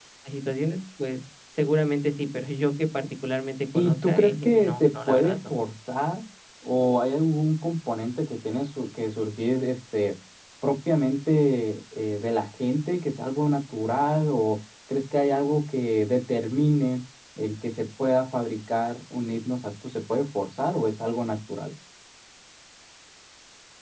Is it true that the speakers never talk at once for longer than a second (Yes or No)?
No